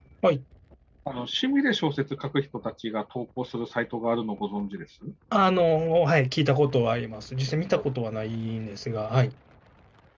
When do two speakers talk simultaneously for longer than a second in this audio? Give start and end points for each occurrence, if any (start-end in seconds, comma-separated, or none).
none